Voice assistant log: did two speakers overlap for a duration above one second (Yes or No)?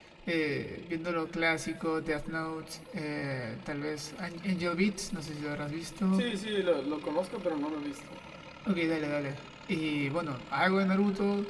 No